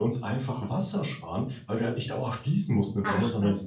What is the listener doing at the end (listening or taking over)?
listening